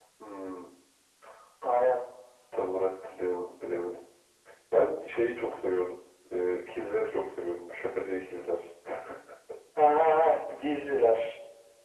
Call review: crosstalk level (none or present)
none